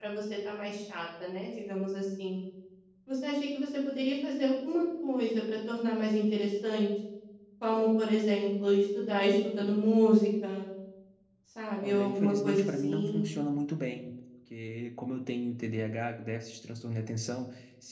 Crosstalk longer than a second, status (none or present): present